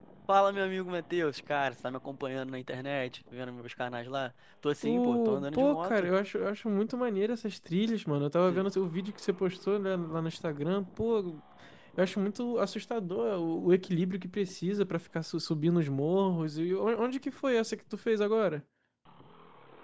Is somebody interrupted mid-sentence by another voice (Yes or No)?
Yes